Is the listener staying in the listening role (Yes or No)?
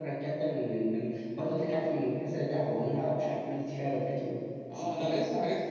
No